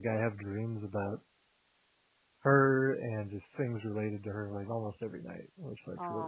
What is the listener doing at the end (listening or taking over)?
taking over